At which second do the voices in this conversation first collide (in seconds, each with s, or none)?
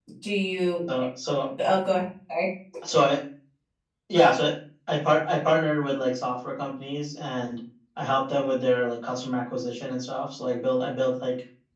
none